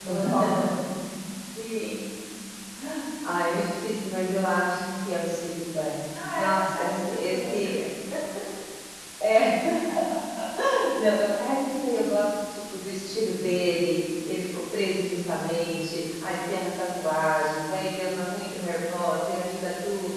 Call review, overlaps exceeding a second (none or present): present